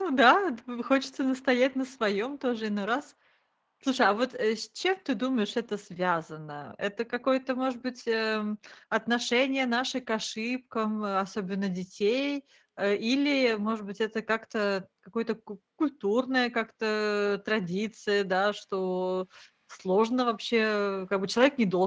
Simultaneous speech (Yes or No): No